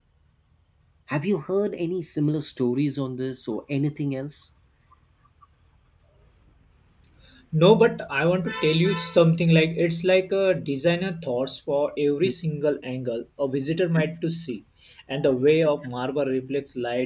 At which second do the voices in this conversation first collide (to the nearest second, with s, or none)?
none